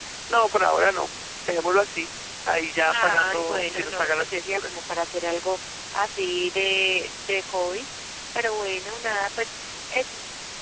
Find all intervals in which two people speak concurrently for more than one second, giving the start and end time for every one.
3.0-4.8

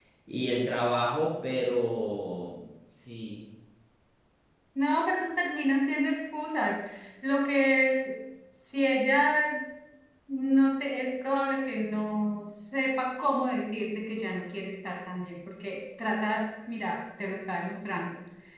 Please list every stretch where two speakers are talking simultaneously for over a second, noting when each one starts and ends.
none

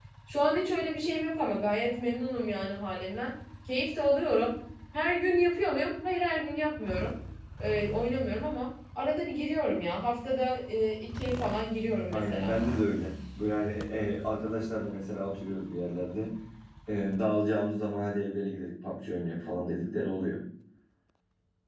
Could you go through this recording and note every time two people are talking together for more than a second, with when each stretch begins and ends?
none

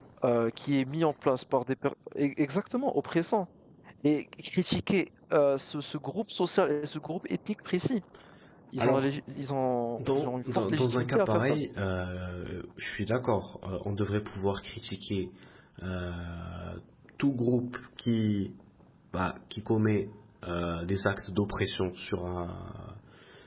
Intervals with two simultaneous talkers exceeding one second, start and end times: 10.0-11.6

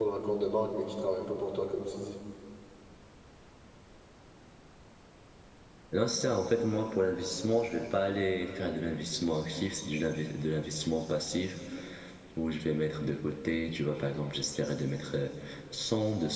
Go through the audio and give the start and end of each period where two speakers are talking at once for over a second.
none

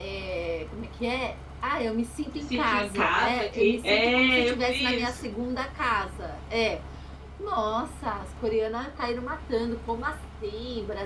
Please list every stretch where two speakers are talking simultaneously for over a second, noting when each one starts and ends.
2.5-5.2

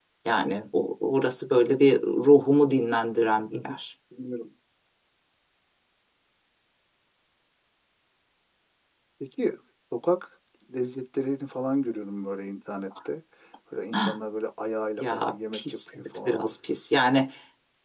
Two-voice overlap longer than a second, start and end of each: 15.0-16.4

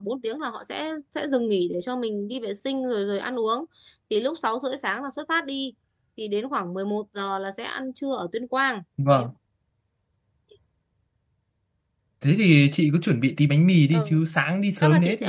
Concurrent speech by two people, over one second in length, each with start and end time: none

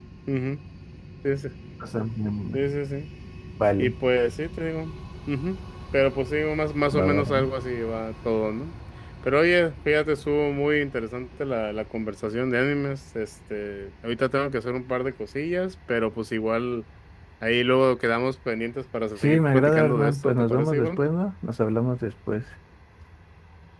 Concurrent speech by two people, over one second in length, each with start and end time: 19.2-21.0

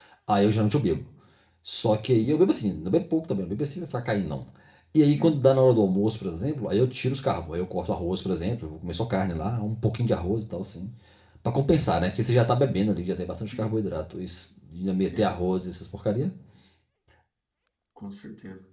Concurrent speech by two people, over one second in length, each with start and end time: none

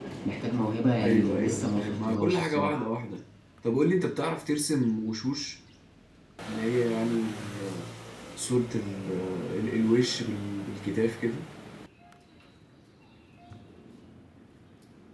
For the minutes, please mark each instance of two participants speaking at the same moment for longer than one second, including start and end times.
1.0-2.9

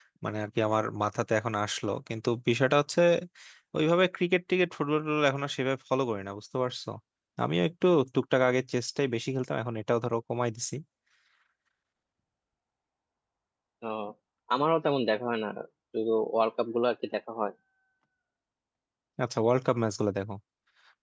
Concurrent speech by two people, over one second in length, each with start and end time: none

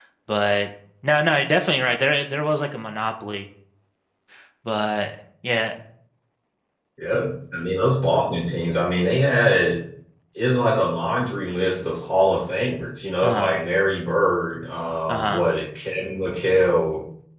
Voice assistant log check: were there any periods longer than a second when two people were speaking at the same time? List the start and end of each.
none

